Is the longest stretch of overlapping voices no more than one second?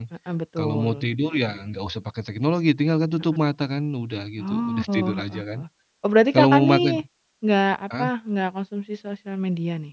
No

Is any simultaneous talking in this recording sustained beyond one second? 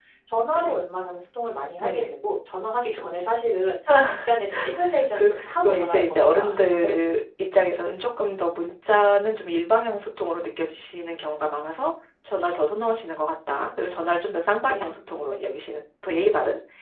Yes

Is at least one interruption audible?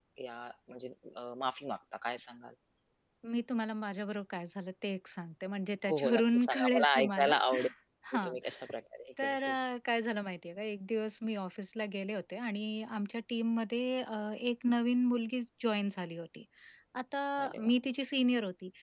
Yes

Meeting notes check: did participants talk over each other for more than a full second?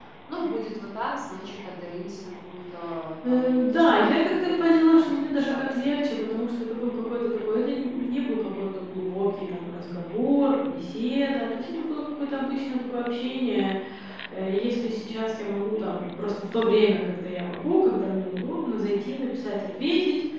Yes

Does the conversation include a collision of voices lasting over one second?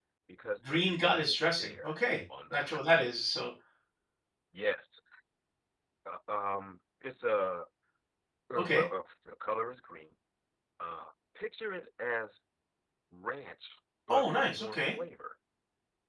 Yes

